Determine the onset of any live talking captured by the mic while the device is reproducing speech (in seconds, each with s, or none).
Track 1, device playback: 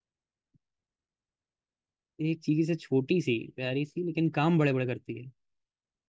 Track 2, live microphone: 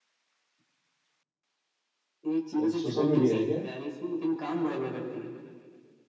2.6 s